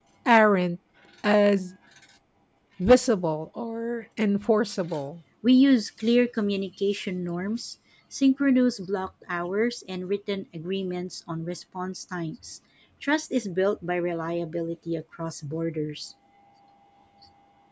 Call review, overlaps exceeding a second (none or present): none